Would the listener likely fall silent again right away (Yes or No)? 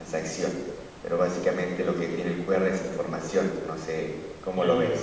No